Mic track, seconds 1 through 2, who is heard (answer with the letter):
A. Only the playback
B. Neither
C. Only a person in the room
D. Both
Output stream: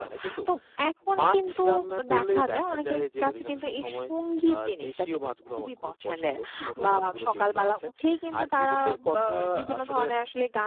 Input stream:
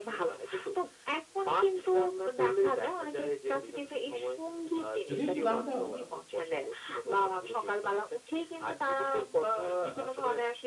A